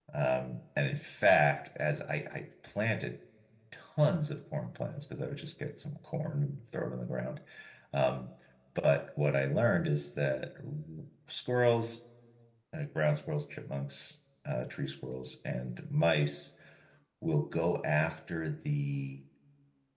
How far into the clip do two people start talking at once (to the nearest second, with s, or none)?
none